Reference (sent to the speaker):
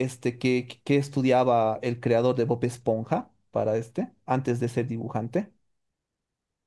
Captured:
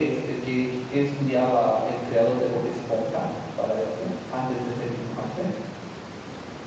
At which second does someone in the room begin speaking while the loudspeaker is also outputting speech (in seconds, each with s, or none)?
none